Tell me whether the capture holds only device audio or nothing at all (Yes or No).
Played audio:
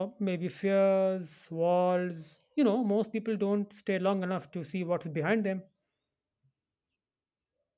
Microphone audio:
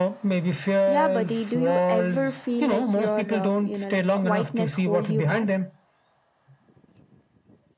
No